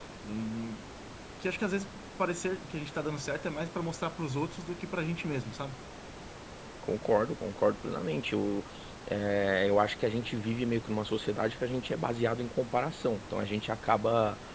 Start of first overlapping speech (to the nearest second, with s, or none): none